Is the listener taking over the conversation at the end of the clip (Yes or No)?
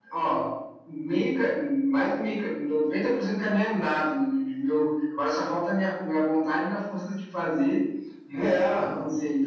No